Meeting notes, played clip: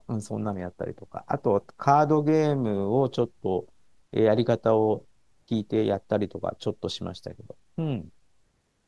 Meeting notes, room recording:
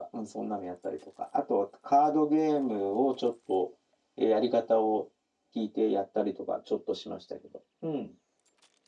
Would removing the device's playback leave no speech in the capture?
Yes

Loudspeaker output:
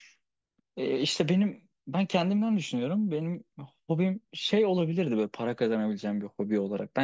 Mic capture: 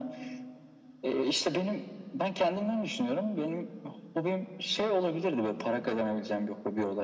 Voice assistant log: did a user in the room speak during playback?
No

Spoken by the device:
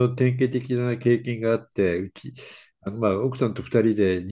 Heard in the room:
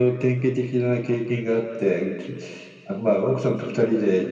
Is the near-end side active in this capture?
No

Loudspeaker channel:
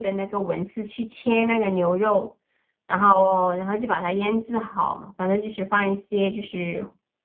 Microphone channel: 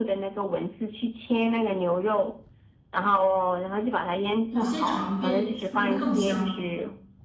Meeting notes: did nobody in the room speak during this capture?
No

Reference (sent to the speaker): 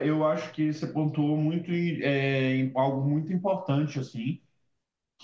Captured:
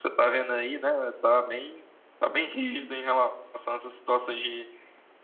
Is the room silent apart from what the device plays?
No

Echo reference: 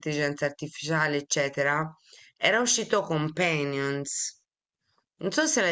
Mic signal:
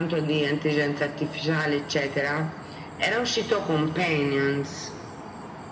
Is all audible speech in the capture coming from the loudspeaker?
Yes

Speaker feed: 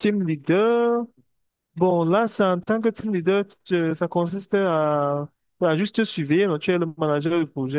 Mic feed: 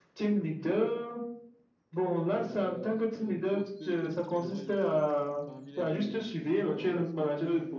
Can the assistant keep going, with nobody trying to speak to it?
No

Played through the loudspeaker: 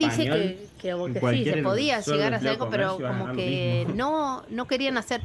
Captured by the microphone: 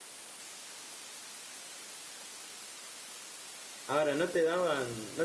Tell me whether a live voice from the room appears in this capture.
Yes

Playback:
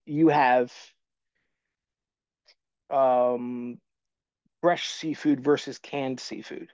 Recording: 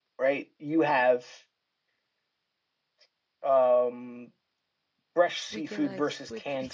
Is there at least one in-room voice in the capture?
Yes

